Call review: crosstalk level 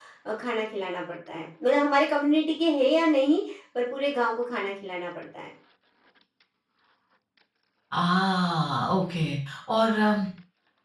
none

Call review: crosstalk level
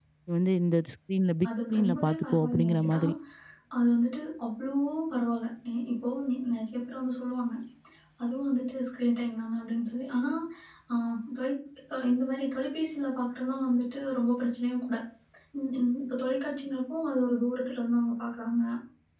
present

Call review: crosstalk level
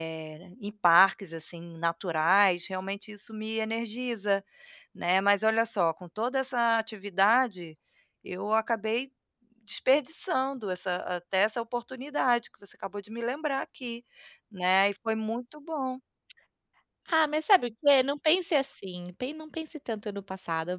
none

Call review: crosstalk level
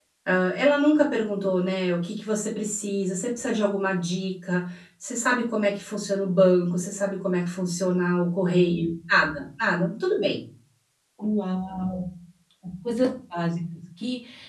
none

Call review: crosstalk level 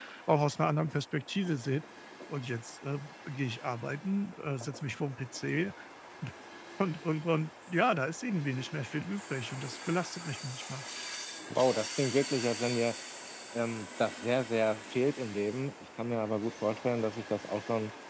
none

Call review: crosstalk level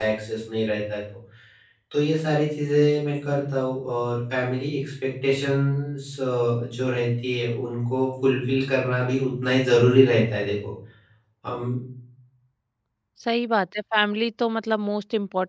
none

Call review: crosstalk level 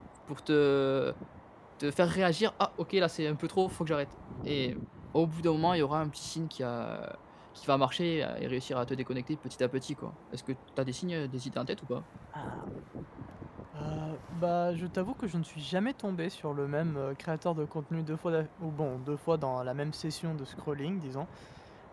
none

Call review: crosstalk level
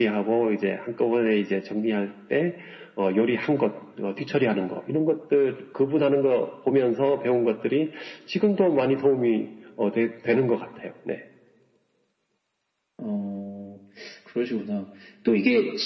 none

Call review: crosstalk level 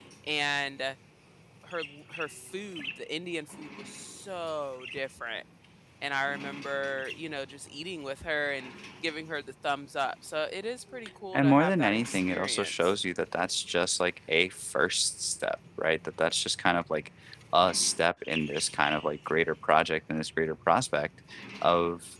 present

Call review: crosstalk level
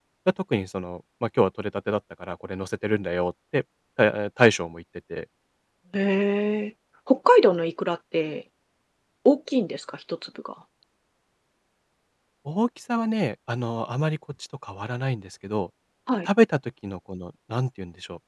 none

